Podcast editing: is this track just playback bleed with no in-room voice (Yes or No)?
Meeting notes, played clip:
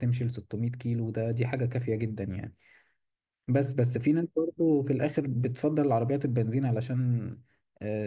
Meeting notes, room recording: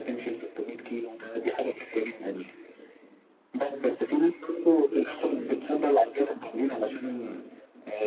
Yes